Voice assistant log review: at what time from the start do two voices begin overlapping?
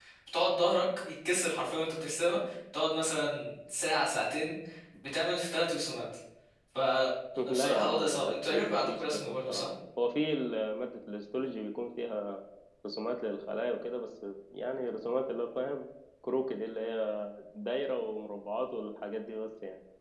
7.5 s

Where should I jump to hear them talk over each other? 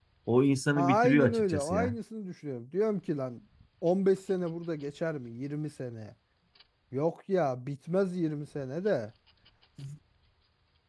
0.8 s

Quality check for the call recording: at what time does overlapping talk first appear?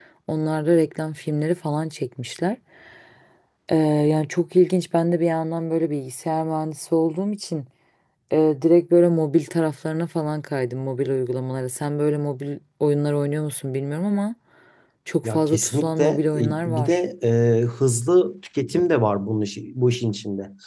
15.2 s

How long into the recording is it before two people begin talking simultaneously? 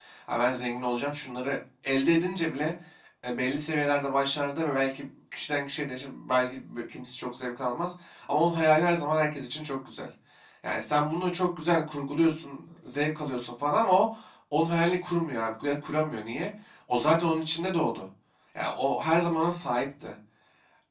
none

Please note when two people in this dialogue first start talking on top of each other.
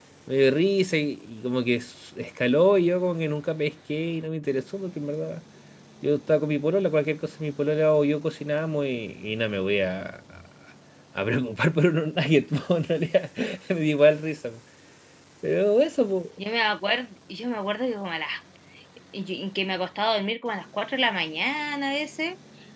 none

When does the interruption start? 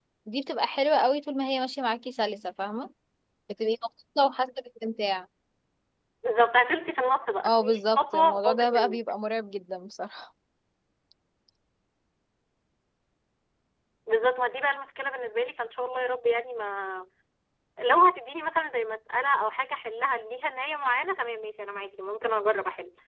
7.4 s

